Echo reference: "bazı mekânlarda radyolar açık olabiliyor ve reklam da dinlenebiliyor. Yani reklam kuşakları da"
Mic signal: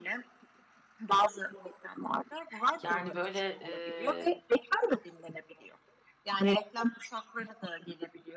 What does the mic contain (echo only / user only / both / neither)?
both